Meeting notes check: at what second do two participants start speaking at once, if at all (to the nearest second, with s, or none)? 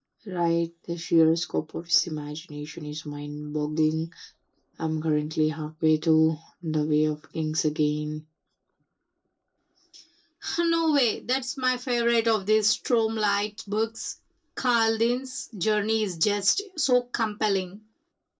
none